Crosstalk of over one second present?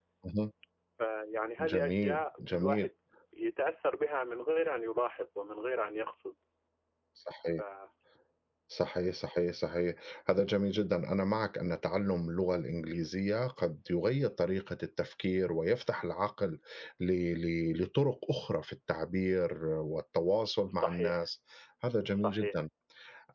Yes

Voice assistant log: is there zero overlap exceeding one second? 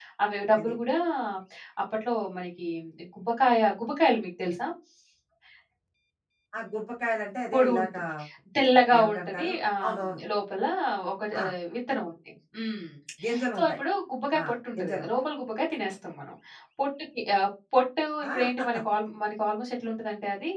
No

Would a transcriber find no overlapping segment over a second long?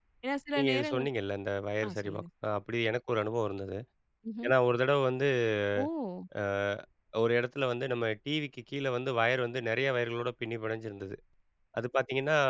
Yes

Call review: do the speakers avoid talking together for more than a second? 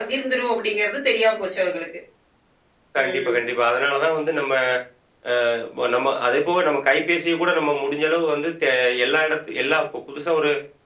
Yes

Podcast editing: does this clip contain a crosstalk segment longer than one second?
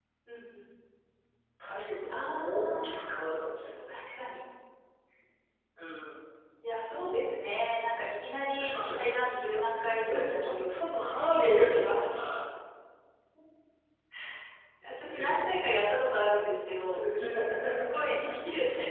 Yes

